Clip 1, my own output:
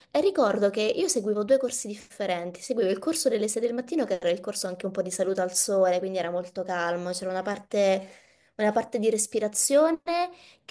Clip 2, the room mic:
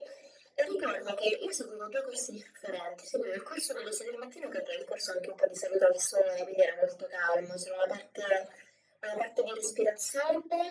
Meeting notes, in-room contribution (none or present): none